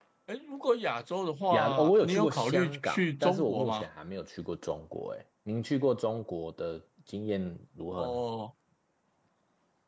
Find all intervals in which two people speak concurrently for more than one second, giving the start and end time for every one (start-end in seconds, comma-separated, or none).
1.5-3.8